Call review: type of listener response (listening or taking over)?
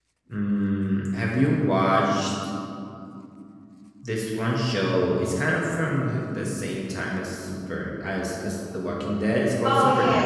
taking over